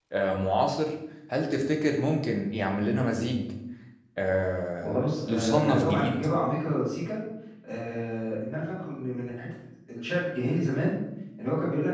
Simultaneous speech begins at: 5 s

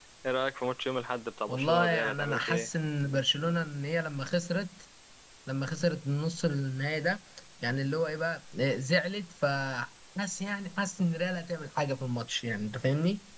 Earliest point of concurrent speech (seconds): 1 s

